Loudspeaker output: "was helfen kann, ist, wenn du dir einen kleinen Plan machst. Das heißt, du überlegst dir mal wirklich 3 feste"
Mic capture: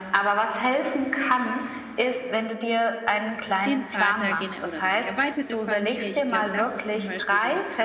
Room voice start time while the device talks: 3.6 s

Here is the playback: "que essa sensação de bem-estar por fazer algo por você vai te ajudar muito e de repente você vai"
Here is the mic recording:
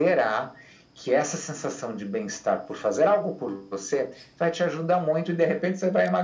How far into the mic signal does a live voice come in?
none

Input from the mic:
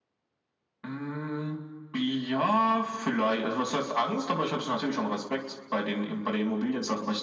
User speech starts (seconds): none

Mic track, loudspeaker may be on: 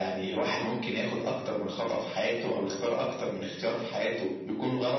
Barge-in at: none

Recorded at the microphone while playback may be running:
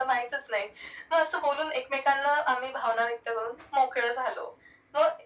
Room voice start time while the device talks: none

